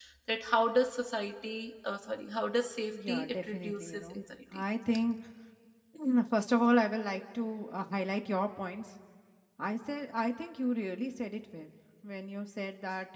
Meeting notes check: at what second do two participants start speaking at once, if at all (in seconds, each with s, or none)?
2.9 s